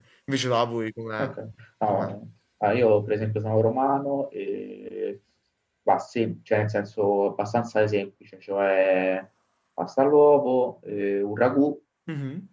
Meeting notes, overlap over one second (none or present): none